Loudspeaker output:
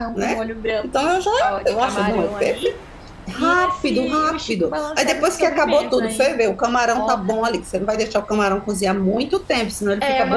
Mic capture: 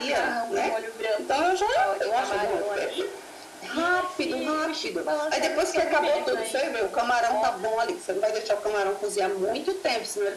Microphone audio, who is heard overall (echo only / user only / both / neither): echo only